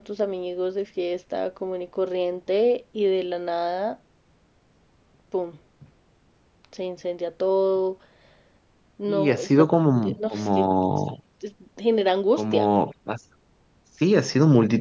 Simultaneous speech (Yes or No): Yes